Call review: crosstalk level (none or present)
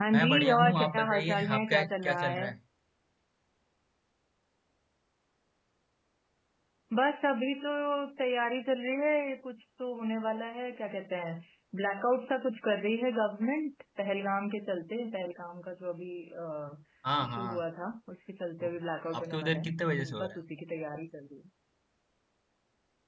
present